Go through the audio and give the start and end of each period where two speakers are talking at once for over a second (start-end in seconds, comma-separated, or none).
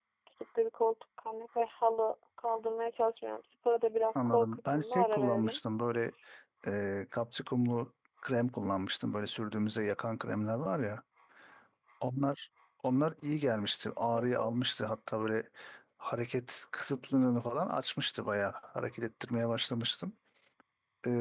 4.2-5.6